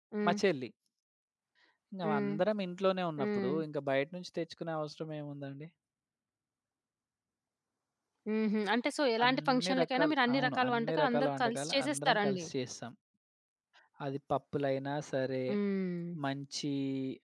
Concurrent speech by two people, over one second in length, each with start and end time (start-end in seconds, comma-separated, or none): 9.2-12.4